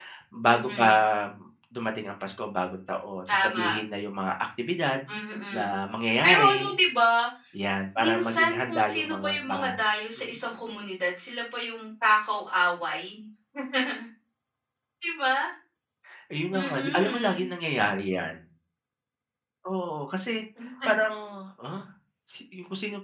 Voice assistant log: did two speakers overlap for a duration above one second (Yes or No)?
Yes